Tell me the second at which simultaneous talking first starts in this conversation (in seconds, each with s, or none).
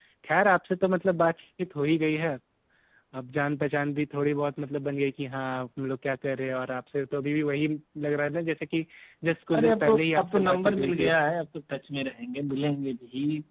9.5 s